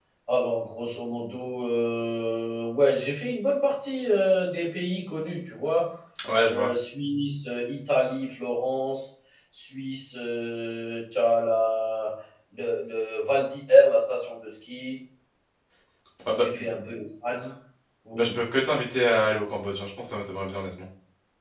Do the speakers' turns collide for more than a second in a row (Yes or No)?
No